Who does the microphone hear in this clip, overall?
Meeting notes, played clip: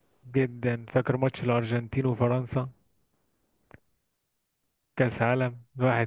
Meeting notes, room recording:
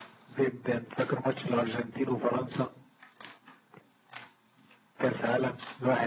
echo only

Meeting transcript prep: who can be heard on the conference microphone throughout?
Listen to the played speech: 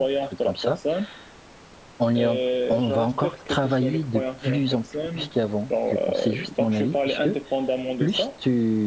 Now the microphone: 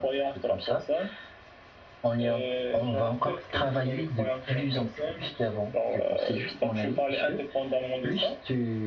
echo only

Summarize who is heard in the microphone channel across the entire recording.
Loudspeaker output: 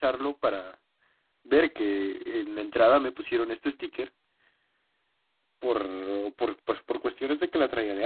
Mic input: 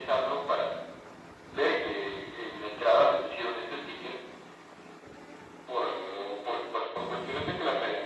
echo only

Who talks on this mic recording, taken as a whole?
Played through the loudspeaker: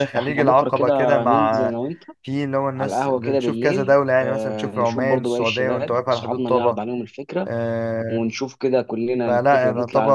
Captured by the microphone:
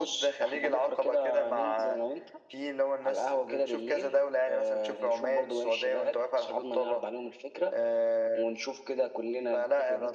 echo only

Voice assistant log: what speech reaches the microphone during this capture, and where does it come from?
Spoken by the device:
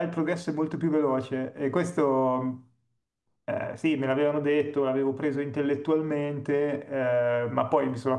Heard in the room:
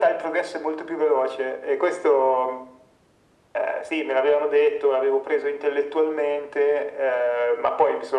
echo only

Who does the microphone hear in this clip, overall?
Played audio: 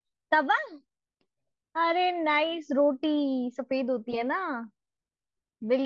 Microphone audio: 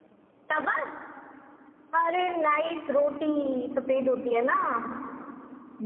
echo only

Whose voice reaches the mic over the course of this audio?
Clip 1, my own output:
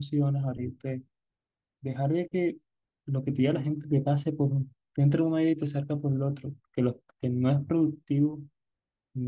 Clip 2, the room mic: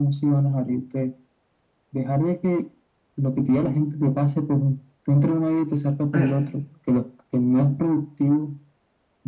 both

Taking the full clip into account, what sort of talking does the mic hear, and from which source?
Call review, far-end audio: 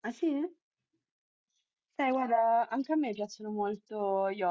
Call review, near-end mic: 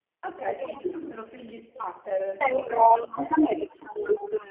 both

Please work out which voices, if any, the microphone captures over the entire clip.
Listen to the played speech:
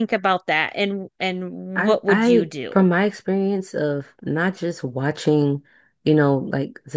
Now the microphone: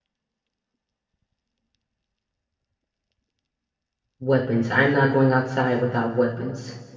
user only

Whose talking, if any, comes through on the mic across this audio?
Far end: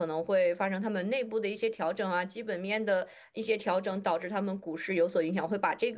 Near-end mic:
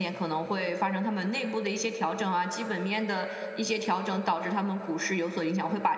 echo only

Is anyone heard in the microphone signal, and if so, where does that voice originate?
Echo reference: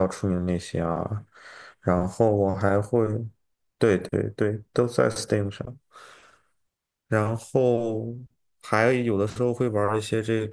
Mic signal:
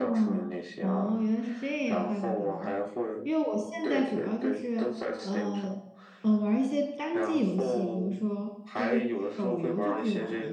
both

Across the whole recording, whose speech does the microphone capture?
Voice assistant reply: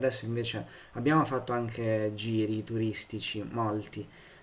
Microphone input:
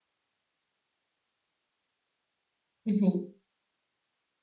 user only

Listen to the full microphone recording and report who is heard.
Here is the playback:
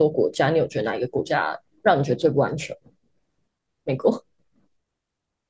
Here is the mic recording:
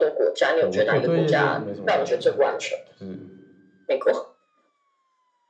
both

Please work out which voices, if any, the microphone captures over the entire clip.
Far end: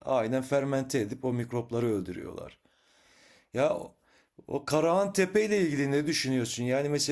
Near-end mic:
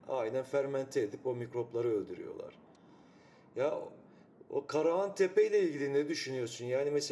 echo only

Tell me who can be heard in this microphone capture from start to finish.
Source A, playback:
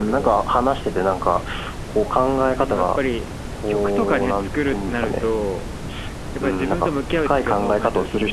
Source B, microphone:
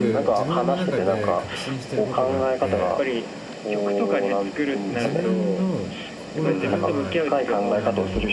both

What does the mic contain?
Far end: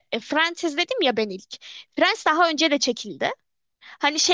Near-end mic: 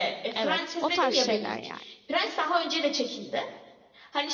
both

